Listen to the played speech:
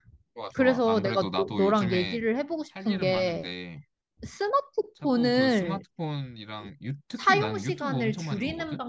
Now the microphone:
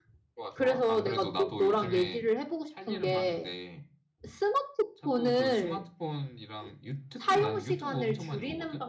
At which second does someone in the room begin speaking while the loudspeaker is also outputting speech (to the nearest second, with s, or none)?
none